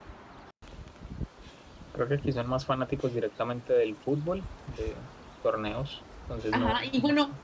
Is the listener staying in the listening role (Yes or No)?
No